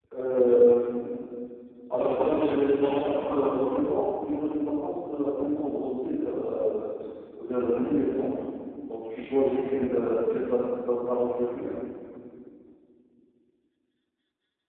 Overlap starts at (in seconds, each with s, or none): 1.9 s